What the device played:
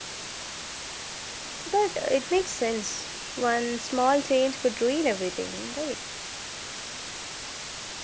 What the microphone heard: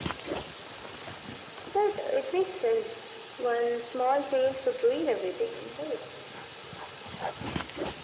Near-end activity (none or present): none